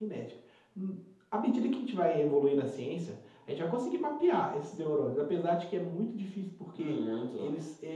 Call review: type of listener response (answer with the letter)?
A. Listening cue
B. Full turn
A